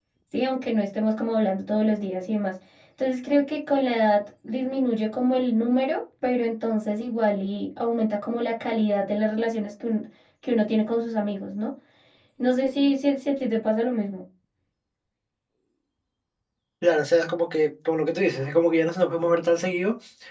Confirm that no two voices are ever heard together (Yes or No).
Yes